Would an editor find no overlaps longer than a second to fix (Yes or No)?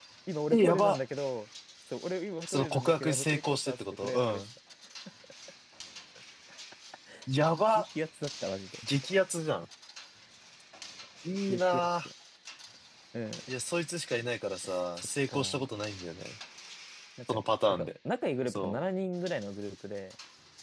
No